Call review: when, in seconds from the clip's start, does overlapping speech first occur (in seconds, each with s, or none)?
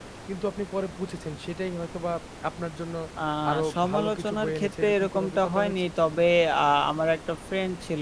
3.7 s